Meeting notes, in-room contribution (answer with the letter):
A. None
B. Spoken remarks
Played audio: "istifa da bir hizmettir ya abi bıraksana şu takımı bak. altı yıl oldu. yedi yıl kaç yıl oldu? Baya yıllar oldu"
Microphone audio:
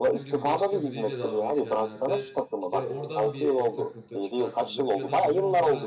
B